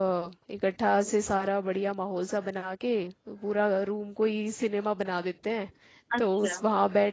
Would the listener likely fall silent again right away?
Yes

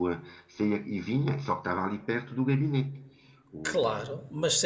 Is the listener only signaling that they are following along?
No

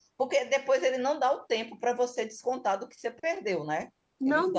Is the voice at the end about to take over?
Yes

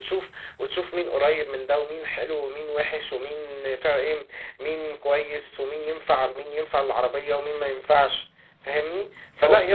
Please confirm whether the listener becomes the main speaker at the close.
No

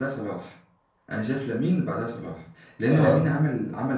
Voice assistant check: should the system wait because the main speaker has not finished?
Yes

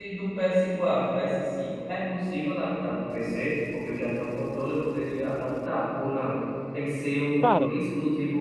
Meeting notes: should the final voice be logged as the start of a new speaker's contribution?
No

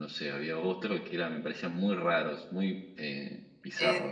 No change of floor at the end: No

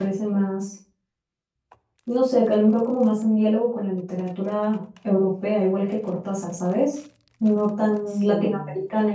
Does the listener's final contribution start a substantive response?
No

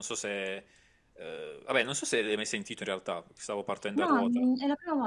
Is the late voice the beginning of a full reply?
Yes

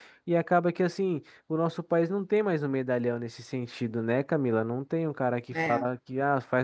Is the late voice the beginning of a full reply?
No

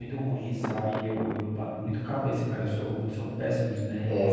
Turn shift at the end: Yes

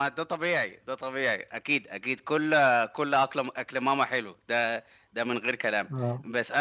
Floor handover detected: No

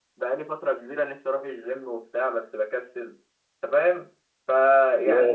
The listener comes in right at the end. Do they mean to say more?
No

